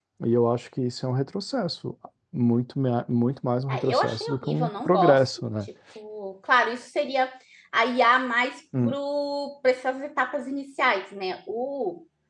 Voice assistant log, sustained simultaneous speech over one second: present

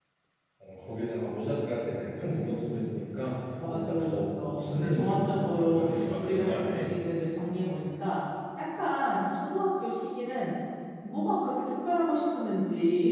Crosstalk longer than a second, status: present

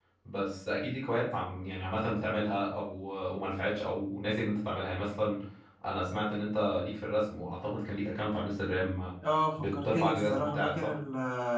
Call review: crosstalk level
present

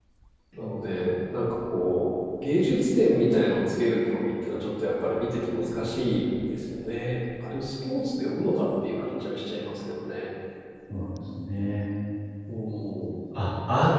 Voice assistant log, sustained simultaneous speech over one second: none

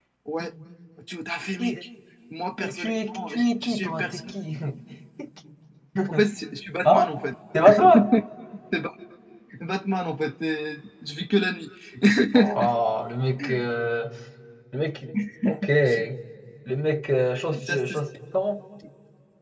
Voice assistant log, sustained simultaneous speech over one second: present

